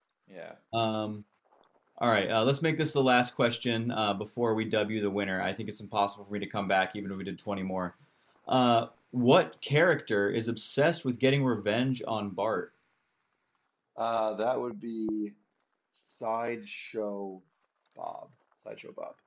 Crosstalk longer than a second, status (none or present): none